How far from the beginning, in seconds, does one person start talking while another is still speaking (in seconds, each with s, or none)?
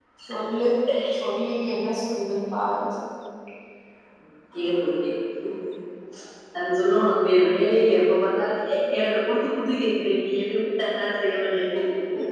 none